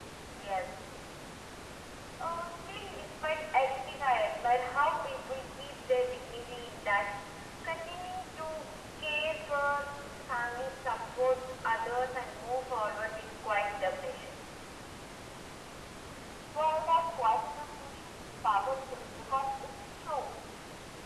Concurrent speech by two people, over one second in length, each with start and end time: none

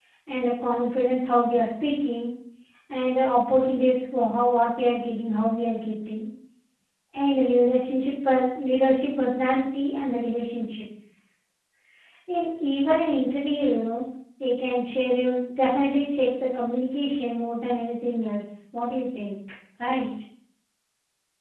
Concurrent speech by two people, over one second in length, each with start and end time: none

